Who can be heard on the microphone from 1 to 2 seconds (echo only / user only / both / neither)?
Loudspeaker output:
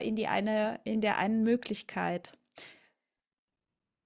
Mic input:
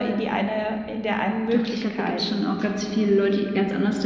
both